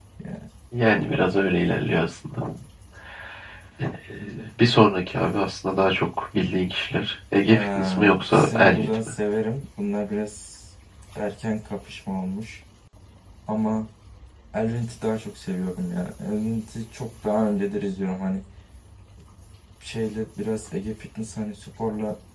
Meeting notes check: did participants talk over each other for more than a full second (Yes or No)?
Yes